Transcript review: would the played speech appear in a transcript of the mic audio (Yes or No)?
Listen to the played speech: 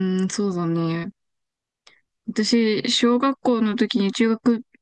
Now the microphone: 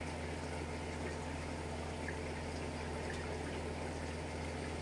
No